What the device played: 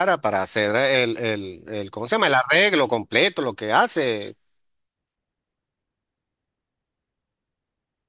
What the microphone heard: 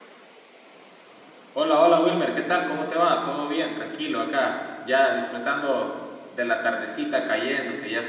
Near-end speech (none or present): present